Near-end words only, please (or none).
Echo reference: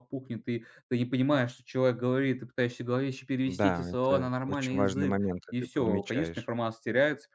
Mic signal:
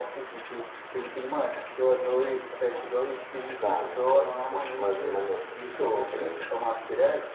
none